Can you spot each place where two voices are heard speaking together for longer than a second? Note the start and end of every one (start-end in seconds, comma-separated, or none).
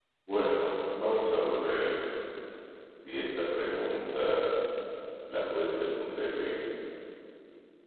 none